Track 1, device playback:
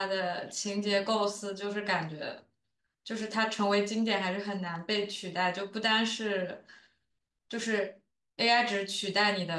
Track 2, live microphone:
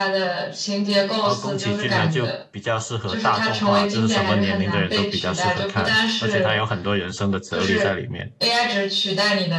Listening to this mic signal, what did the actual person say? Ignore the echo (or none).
然后宫崎骏呢，就比较适合大众化，就是什么年龄的人都比较适合看，而且他有很多人生的哲理在里面，